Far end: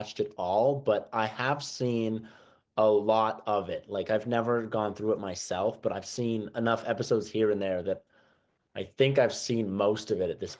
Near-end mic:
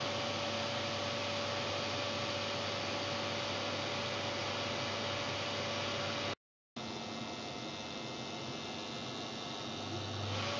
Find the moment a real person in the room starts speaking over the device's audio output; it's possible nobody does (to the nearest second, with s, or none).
none